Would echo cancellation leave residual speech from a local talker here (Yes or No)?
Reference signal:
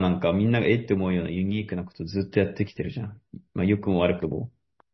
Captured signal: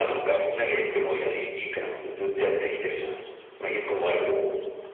No